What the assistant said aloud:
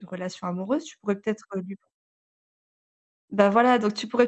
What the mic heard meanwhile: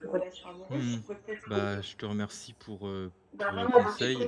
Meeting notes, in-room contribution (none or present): present